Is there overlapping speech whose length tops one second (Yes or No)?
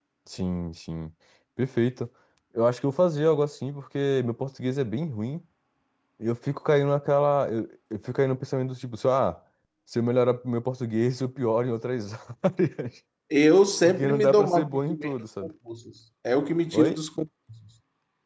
Yes